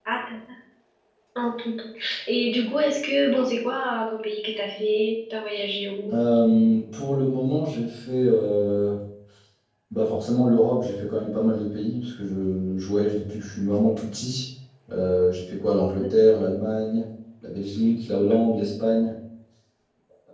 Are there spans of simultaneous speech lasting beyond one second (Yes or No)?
No